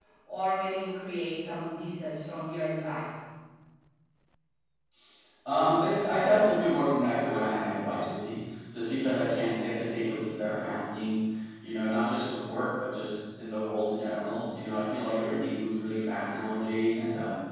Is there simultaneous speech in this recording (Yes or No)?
No